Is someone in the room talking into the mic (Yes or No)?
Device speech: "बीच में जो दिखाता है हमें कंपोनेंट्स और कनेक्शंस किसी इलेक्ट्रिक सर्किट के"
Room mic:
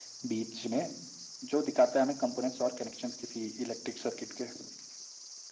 No